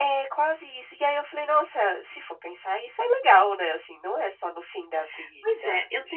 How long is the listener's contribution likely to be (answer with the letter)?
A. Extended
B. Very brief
A